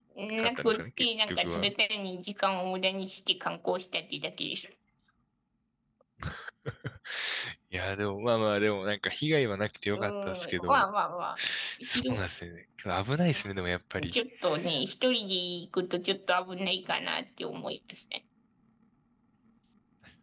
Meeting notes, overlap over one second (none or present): present